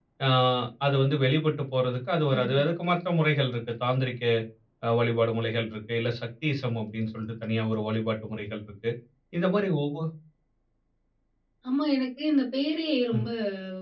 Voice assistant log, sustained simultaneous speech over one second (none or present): none